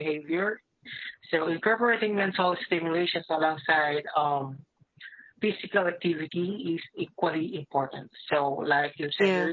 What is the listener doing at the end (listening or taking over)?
listening